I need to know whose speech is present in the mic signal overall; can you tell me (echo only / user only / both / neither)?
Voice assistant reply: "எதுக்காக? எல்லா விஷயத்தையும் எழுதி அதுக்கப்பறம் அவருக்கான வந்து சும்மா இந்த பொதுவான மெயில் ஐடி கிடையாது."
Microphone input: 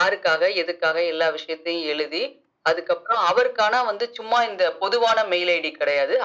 echo only